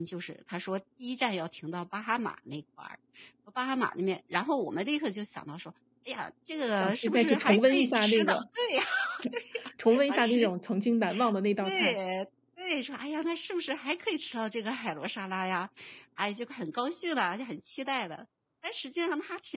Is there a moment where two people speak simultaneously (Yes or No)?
Yes